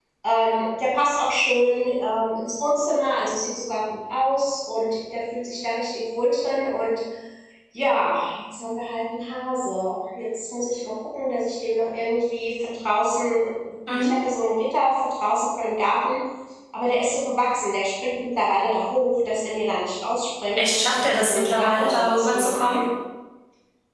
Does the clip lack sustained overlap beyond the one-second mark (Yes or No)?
No